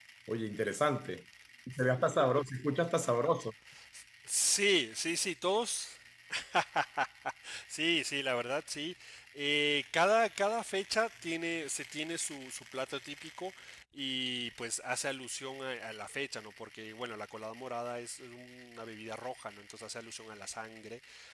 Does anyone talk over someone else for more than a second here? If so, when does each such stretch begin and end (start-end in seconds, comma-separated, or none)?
none